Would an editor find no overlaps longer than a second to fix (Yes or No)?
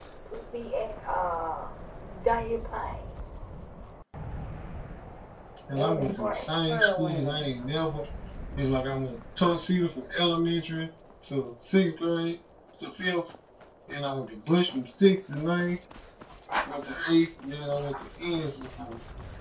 No